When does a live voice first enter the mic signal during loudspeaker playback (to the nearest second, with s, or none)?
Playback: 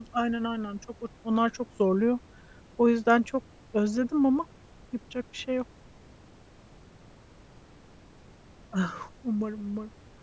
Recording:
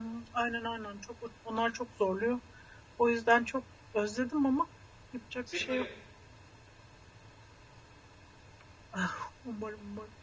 5 s